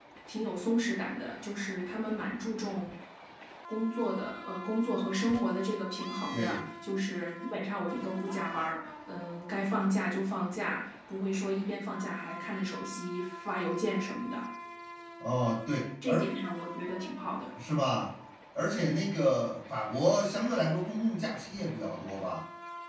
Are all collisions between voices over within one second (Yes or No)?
Yes